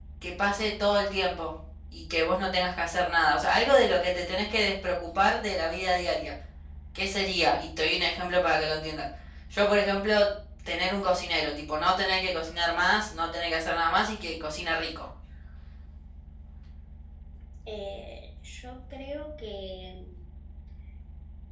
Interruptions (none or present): none